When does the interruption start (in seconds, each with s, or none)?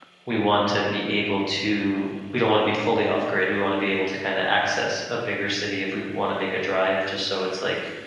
none